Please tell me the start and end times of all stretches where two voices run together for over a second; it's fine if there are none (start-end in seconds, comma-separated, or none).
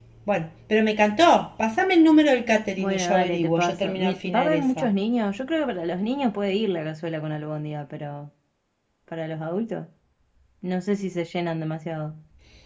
2.8-4.9